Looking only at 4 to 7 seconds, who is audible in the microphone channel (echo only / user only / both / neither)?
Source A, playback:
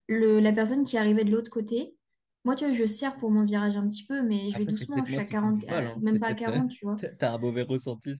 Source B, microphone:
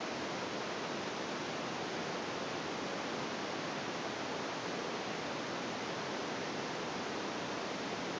neither